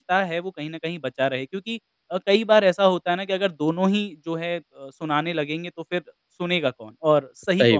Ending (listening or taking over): listening